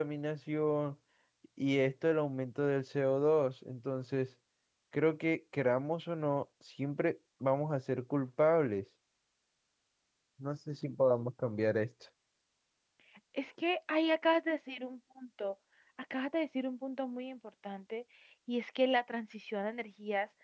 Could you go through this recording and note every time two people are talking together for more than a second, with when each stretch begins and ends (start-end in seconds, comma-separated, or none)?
none